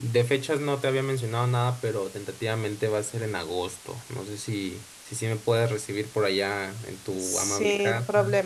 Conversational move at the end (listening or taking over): taking over